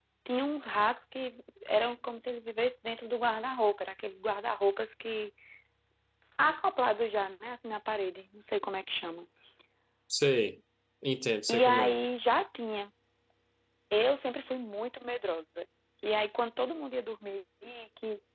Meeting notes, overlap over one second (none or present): none